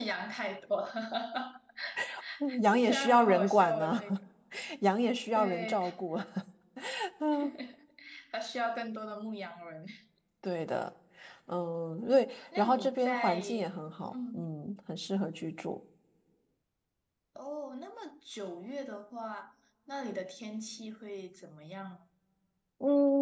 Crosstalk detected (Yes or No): Yes